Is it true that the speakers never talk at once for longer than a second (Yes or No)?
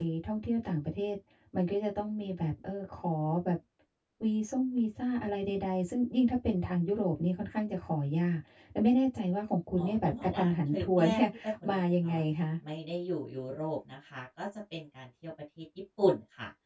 No